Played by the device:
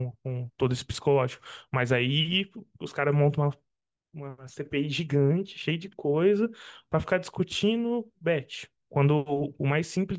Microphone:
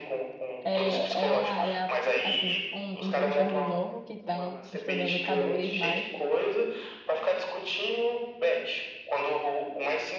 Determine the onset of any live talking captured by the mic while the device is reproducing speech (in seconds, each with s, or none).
0.6 s